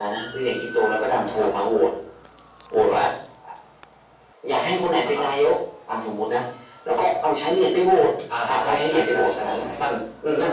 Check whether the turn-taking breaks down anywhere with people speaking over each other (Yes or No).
Yes